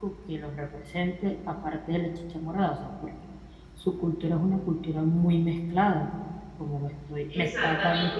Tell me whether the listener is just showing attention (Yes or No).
No